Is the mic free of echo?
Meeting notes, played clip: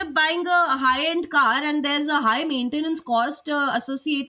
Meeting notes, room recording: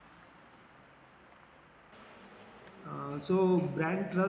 Yes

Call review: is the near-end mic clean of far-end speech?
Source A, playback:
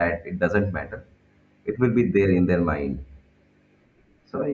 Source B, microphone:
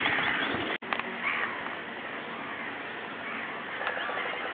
Yes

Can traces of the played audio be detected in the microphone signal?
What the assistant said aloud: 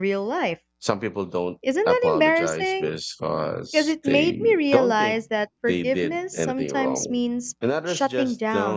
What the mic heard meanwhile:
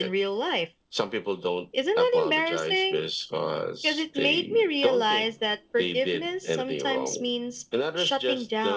Yes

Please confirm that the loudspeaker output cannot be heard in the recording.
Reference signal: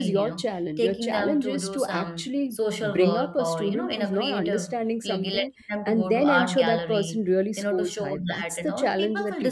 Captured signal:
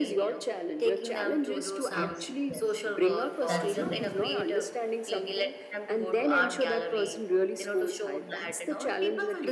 No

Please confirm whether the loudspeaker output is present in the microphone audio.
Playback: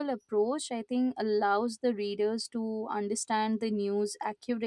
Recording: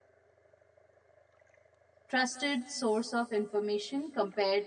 No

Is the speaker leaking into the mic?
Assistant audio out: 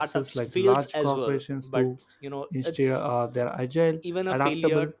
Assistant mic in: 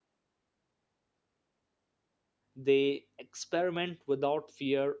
No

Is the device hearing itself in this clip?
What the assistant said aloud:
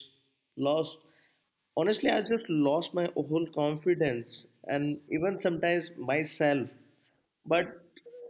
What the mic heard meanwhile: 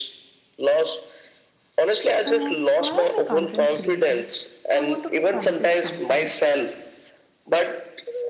Yes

